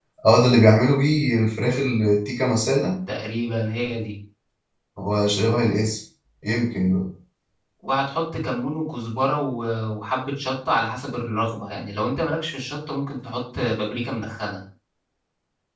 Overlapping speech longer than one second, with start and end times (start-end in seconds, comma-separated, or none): none